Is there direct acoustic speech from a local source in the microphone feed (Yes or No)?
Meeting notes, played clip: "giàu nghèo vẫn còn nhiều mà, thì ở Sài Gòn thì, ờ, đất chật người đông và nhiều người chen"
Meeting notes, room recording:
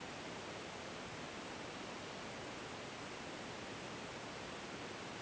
No